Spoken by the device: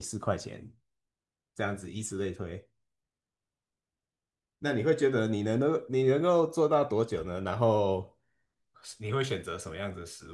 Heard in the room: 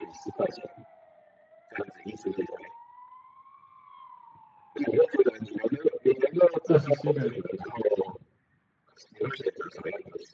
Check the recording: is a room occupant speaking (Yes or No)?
Yes